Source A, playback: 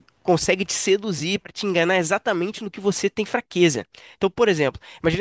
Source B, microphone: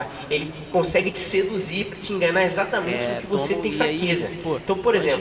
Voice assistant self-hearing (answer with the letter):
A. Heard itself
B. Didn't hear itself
A